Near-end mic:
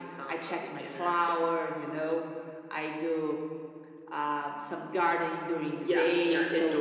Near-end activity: none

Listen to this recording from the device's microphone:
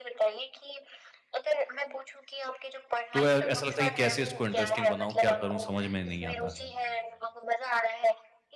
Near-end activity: present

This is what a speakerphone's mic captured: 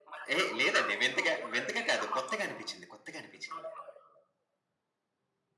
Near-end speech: present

